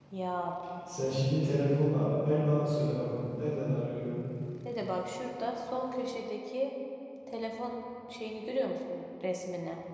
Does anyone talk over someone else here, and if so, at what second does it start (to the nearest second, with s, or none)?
none